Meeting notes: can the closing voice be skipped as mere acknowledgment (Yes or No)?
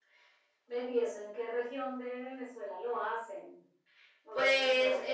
No